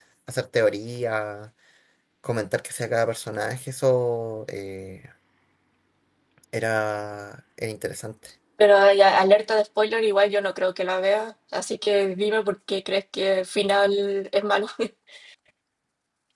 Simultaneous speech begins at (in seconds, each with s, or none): none